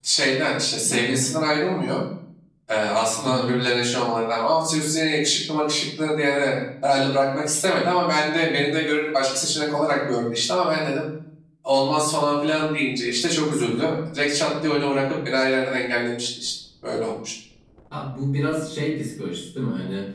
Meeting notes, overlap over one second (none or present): none